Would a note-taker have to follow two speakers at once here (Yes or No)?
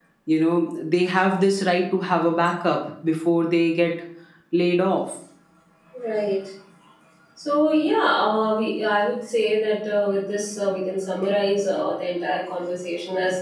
No